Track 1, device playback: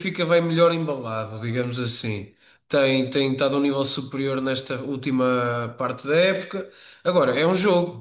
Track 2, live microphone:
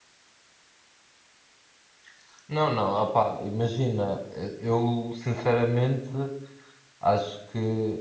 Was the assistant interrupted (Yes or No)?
Yes